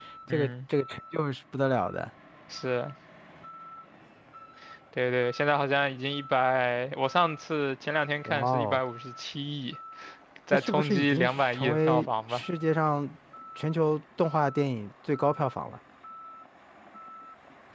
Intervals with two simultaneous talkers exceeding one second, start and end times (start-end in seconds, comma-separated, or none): 10.5-12.4